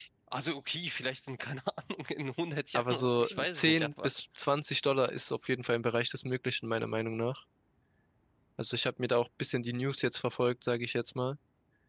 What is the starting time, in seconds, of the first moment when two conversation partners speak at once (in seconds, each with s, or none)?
2.7 s